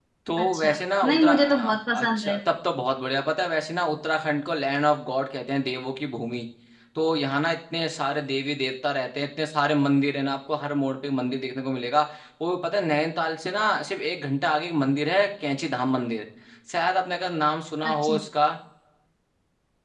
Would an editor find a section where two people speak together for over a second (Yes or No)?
Yes